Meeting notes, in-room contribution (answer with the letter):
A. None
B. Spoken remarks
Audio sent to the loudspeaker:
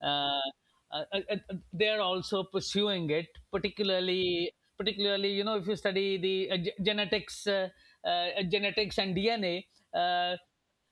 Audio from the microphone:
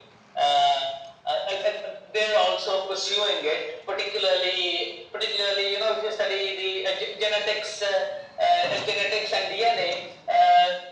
A